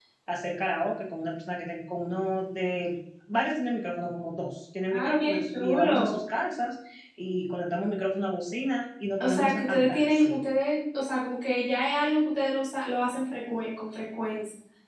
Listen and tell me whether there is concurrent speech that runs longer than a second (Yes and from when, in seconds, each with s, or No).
Yes, from 5.0 s